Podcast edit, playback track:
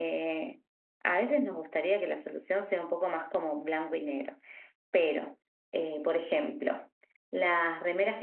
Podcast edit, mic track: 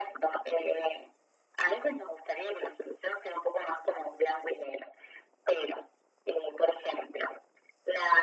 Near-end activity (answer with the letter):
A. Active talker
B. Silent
B